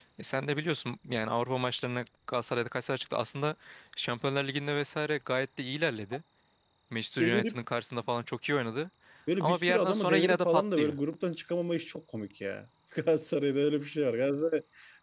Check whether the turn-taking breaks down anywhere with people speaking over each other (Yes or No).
Yes